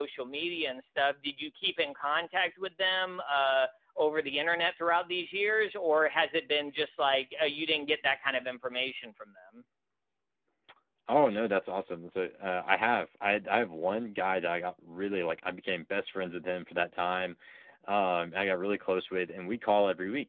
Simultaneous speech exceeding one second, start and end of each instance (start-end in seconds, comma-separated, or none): none